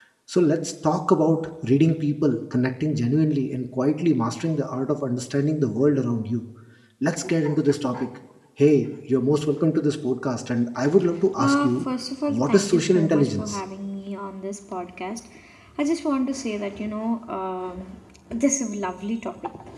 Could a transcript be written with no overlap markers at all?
No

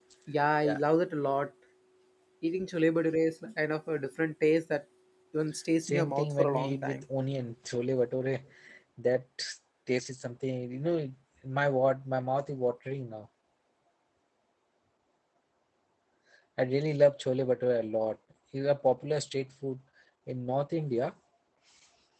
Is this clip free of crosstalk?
No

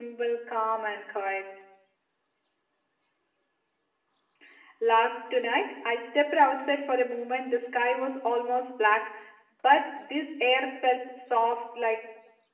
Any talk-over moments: No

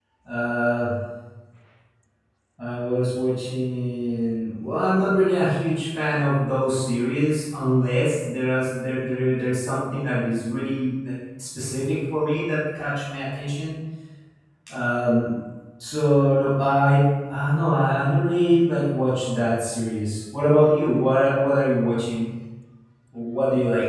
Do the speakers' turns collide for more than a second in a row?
No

